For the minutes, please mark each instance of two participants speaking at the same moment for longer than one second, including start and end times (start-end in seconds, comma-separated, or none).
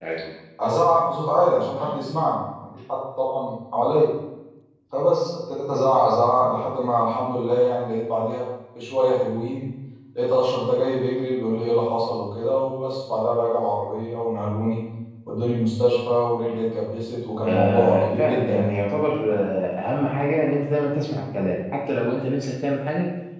17.4-18.8